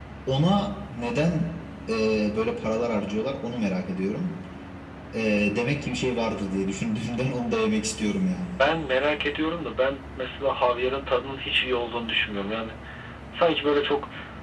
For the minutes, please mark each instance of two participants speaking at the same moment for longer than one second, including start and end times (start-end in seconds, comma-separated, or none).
none